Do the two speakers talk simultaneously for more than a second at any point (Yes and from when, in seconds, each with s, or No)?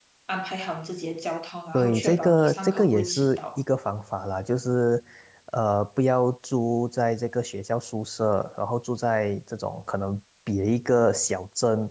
Yes, from 1.7 s